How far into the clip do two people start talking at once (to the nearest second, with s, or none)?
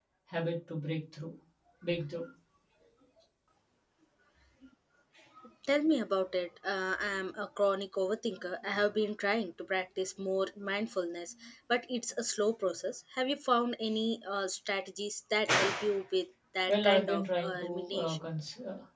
17 s